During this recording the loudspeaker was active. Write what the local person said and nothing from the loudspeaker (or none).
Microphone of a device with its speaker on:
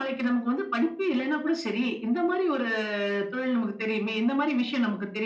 none